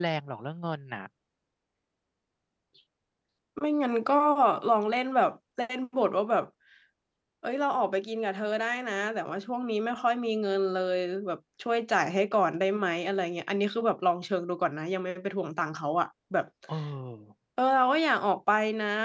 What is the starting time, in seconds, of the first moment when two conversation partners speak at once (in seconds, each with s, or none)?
none